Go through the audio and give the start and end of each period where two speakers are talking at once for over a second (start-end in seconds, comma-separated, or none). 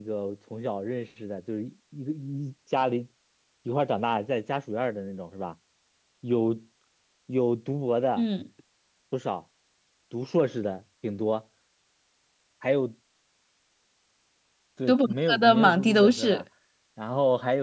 14.9-16.4